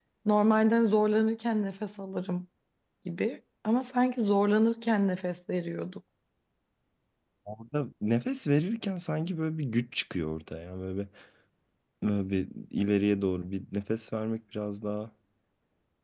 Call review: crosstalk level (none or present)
none